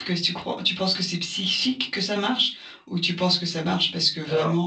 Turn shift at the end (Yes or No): No